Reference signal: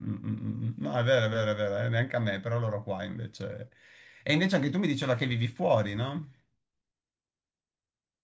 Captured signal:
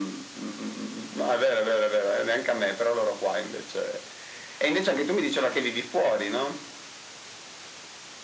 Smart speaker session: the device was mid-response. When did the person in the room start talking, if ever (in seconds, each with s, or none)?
none